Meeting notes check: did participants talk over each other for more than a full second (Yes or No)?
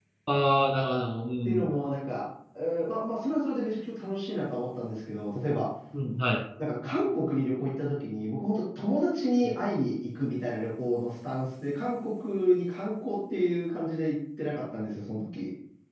No